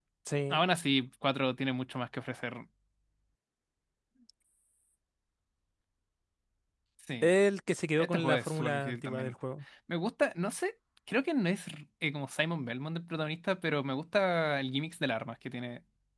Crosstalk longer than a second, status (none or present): present